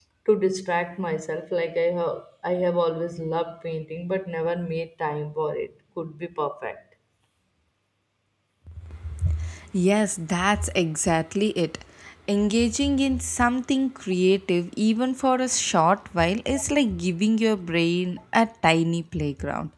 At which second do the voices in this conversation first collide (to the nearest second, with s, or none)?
none